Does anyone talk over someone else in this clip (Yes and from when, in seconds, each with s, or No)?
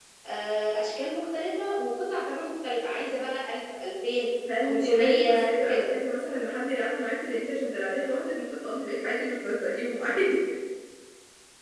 Yes, from 4.5 s